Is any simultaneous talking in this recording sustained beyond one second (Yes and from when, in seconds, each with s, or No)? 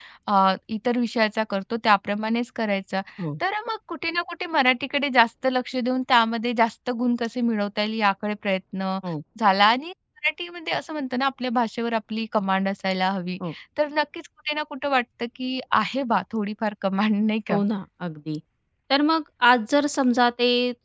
No